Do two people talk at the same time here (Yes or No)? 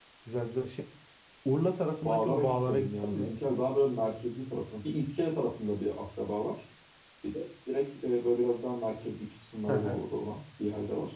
Yes